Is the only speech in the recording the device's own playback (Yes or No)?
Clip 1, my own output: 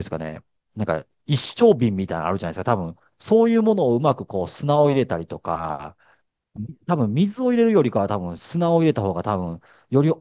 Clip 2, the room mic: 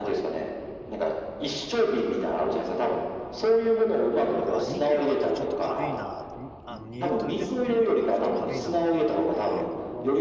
No